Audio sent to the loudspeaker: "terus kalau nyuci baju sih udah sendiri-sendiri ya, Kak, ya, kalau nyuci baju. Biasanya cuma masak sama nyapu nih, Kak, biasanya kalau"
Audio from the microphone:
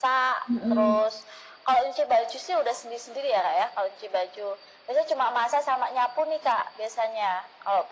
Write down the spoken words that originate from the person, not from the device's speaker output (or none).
mhm.